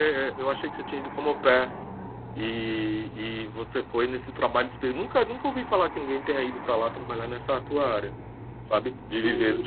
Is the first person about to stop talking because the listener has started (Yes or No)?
Yes